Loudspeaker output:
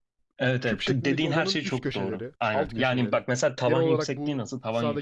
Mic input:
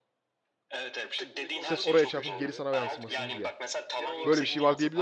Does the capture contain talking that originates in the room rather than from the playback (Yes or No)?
Yes